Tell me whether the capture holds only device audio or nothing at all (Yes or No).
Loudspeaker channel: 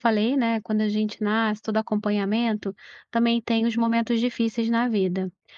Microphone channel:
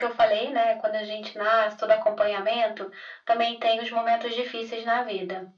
Yes